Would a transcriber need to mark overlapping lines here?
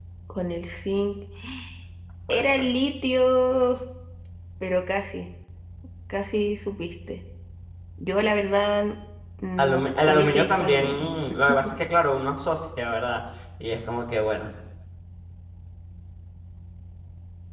Yes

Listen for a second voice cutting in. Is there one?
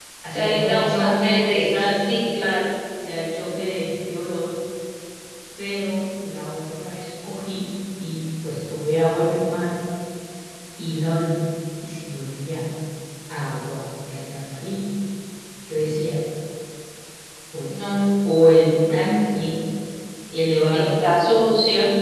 Yes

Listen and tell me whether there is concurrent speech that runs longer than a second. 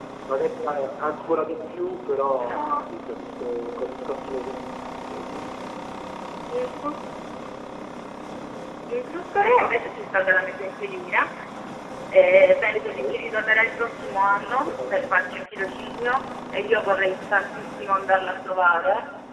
No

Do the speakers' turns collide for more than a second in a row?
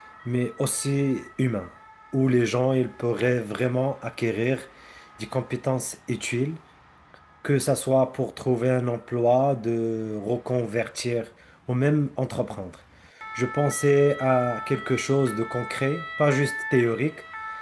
No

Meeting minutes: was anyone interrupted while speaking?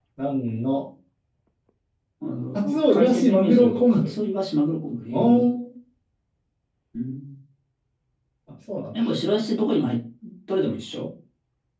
Yes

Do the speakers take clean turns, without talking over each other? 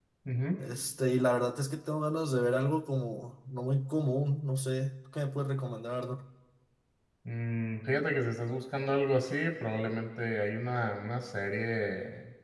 Yes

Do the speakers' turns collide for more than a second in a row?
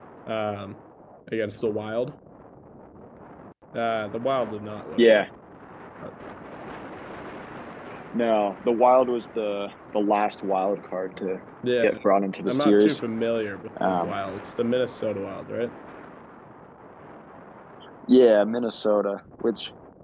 No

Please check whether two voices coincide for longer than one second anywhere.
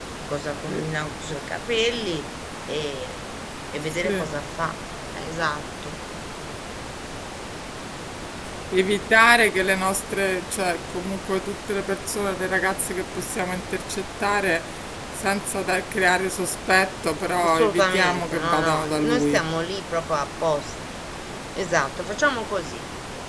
Yes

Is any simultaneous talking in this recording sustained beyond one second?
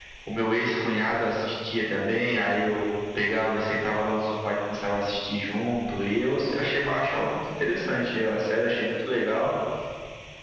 No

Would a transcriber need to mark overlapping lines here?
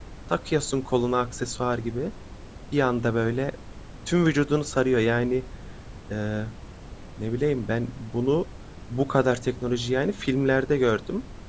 No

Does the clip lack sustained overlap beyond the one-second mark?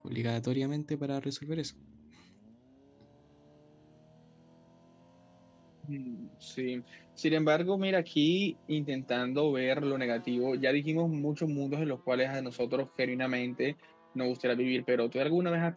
Yes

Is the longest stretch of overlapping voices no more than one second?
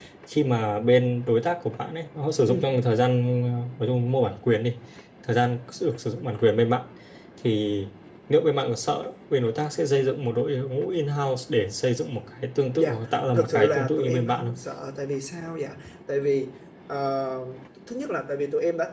No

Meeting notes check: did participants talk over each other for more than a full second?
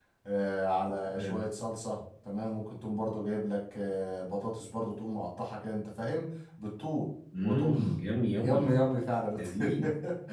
No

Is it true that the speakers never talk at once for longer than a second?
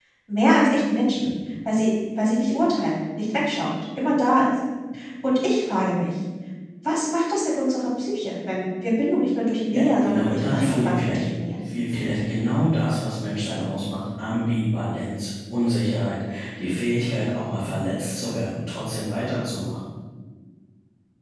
No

